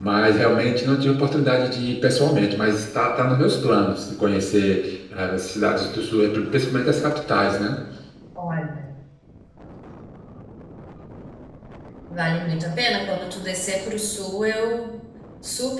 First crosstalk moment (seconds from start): none

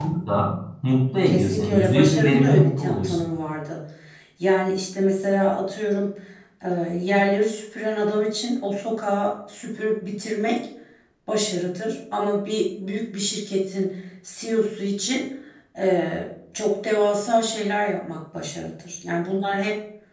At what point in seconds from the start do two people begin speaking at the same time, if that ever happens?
1.3 s

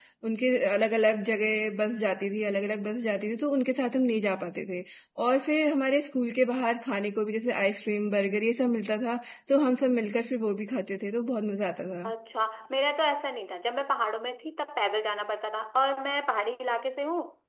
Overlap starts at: none

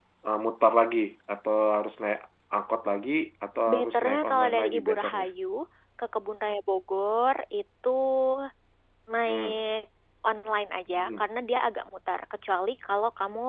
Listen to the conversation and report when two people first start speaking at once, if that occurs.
3.7 s

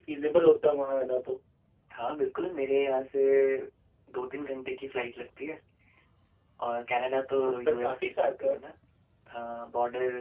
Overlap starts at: 7.3 s

